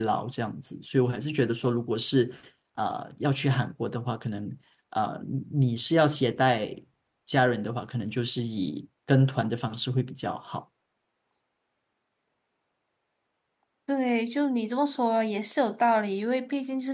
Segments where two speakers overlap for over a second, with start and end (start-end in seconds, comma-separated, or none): none